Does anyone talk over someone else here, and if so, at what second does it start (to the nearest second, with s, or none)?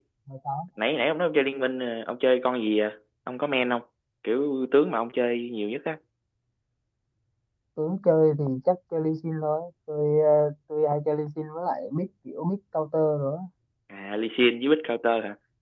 none